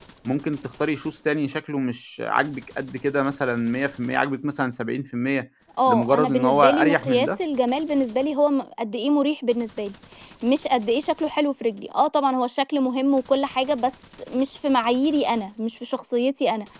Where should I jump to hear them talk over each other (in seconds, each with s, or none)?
5.8 s